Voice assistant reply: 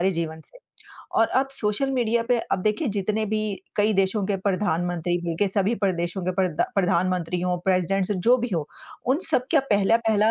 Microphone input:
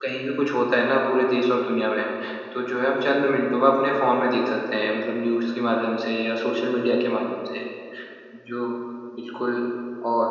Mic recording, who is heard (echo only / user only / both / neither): user only